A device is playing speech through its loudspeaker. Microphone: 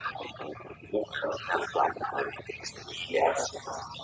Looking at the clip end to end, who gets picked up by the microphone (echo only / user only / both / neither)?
echo only